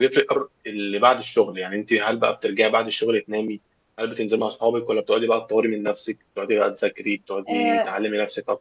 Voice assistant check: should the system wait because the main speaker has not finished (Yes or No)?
Yes